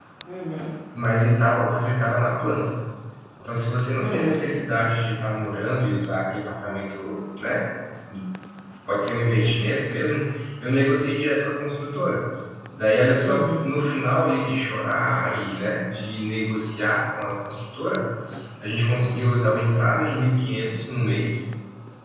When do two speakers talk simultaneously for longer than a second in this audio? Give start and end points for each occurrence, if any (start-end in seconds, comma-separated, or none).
none